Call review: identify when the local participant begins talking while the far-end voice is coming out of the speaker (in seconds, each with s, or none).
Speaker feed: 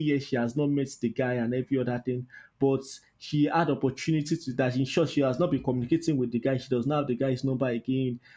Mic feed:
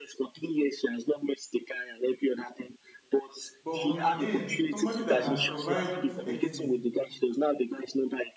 3.6 s